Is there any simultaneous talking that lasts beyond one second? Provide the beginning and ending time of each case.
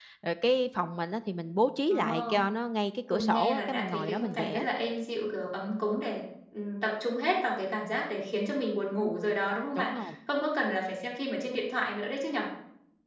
3.1-4.7

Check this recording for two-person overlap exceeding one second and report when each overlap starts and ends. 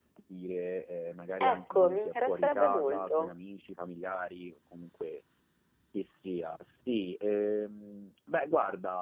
1.5-3.3

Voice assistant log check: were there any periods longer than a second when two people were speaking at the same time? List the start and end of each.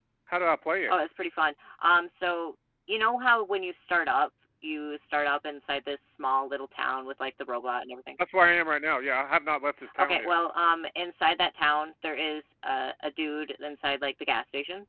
none

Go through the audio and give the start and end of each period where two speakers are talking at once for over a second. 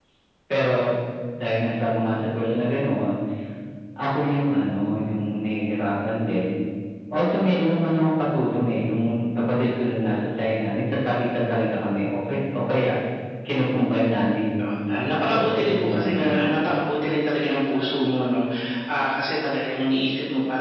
15.2-16.8

